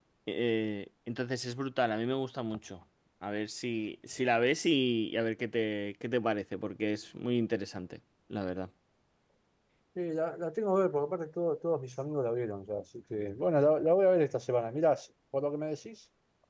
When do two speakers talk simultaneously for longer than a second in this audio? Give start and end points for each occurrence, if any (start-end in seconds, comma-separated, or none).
none